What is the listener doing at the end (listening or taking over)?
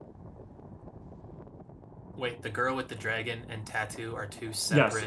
taking over